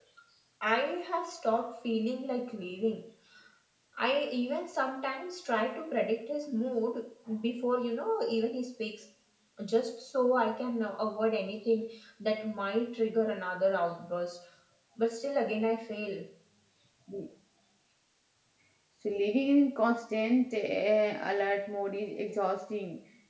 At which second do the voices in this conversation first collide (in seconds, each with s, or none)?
none